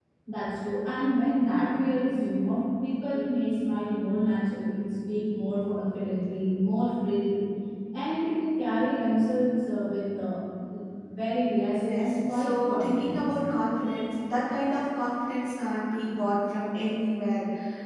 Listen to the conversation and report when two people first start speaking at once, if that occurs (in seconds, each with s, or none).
11.7 s